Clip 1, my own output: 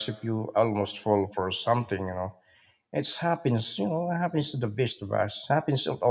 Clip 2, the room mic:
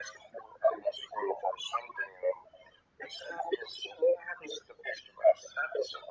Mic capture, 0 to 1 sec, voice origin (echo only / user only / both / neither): echo only